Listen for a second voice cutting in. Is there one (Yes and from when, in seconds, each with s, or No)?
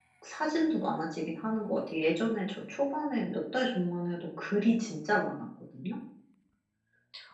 No